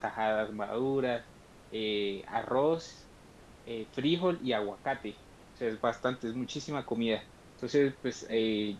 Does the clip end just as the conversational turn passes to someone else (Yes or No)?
No